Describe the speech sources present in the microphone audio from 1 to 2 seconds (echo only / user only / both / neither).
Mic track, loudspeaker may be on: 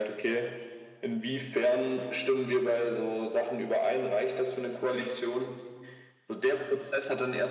echo only